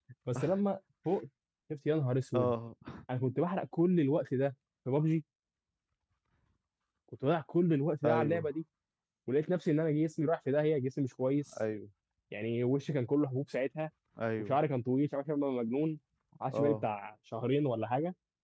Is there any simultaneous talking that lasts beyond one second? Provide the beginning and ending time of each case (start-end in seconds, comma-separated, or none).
none